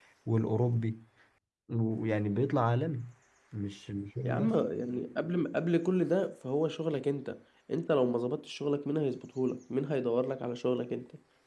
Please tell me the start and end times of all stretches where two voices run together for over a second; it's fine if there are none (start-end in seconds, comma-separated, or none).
none